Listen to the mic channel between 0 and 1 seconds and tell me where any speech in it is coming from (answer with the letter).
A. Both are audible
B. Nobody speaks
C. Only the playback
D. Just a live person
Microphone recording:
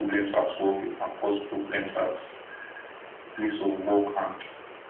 C